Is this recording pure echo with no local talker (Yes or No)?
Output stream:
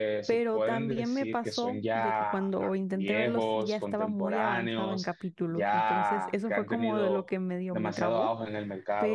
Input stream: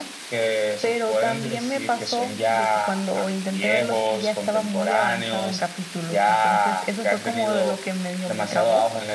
Yes